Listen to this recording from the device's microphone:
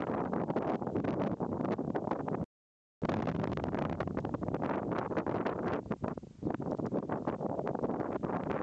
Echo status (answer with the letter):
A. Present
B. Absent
B